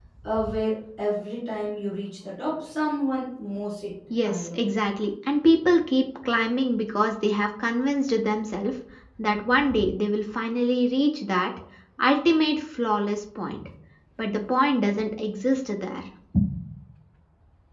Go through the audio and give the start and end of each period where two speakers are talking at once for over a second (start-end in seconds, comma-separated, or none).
none